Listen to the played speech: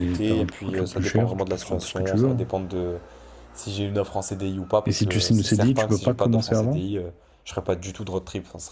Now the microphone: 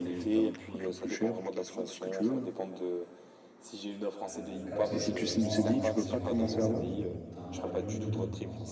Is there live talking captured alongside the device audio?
Yes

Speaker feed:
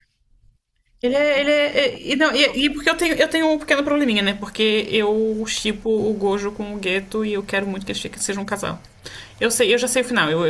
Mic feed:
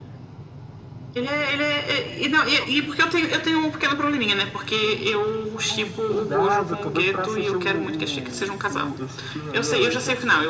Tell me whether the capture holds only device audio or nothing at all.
No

